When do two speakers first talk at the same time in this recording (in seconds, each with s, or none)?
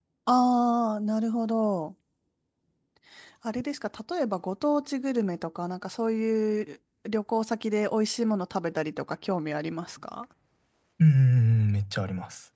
none